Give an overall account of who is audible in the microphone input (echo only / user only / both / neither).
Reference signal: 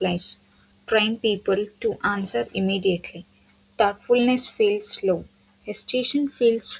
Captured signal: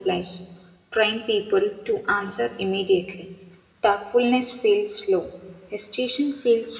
echo only